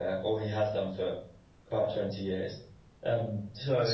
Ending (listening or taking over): taking over